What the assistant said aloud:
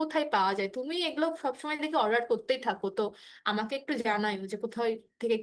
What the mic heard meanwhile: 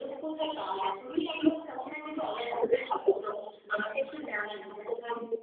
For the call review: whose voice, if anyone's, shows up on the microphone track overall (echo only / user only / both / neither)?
echo only